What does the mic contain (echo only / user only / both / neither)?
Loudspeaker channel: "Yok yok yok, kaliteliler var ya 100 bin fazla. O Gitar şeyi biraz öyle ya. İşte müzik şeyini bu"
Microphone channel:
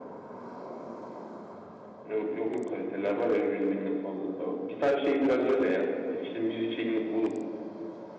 echo only